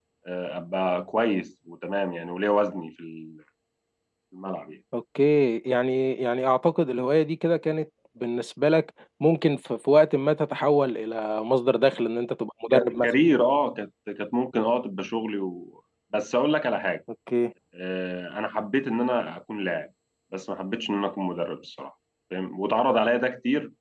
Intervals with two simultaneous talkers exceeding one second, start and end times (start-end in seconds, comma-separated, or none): none